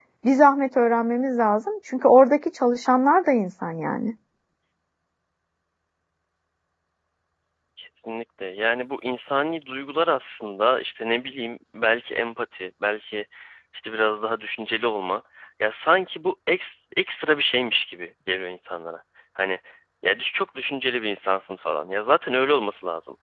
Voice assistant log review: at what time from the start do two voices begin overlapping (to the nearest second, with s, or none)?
none